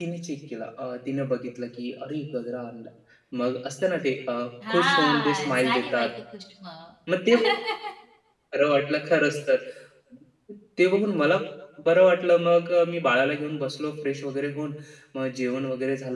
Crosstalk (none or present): present